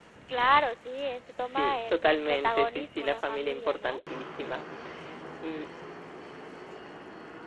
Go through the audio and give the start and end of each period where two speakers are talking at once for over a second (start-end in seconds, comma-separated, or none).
1.6-4.0